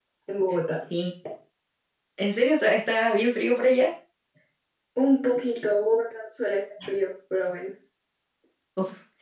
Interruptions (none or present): none